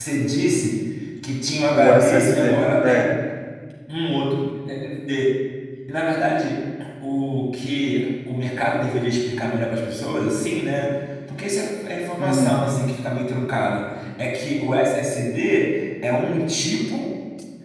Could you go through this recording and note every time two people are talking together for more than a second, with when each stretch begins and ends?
1.7-3.1

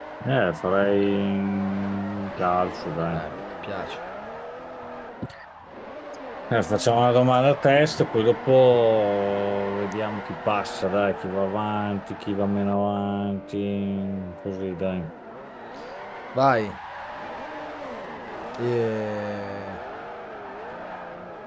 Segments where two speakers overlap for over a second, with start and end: none

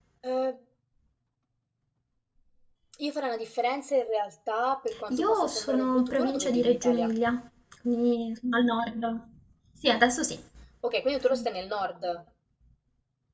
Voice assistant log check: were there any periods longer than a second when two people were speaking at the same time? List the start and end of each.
5.1-7.1

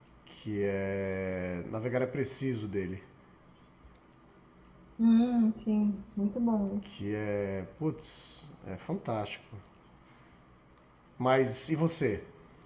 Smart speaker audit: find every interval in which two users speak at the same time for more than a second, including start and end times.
none

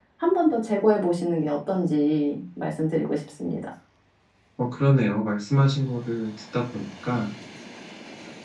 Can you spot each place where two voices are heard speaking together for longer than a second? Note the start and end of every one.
none

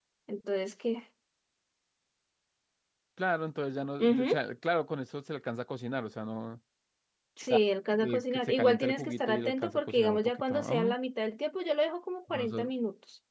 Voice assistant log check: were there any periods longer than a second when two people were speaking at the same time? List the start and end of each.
8.0-10.9

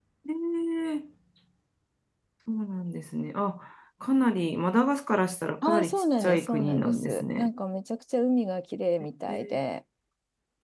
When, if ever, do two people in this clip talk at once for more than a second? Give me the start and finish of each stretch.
5.7-7.5

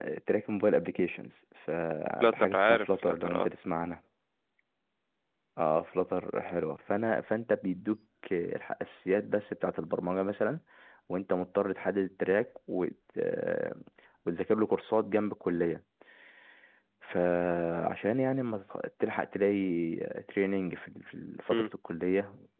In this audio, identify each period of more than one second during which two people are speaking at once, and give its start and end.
2.2-3.5

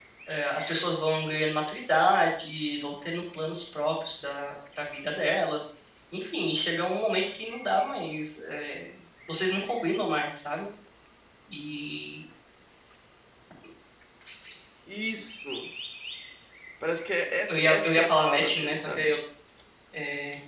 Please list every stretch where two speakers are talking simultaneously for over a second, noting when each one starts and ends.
17.5-19.1

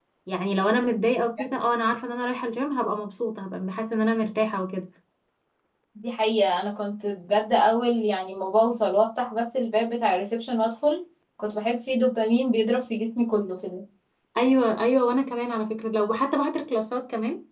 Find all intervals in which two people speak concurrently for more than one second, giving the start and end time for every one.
none

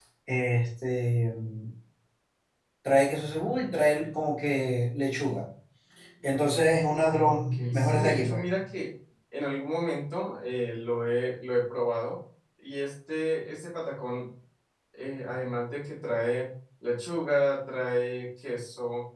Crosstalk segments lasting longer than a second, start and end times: 7.2-8.4

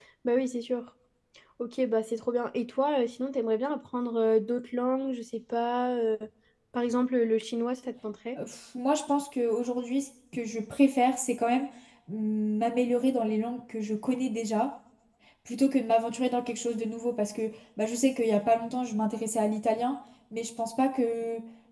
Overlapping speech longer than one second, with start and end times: none

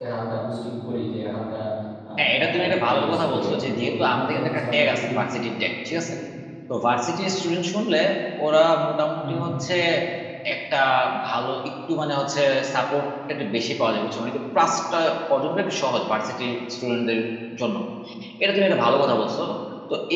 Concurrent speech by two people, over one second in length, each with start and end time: 2.2-5.2

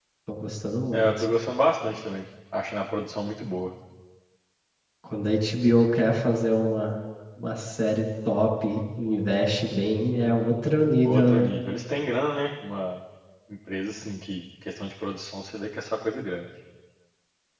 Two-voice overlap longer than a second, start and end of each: none

